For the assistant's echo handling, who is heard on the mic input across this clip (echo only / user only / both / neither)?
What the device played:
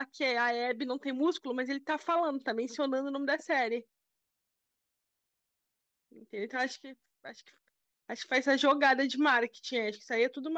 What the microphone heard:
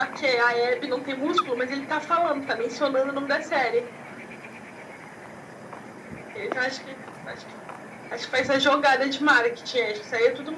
echo only